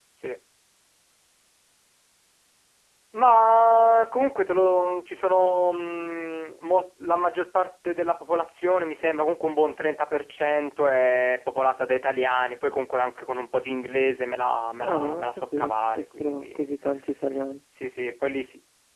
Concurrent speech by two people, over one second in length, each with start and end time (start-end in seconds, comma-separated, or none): 14.8-16.7